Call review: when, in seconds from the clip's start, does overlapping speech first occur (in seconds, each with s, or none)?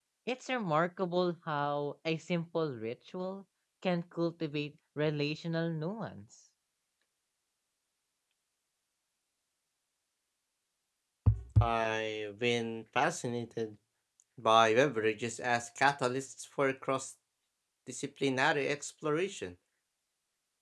none